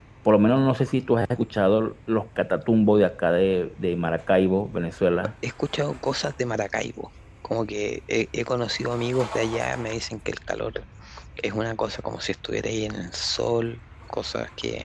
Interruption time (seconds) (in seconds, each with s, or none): none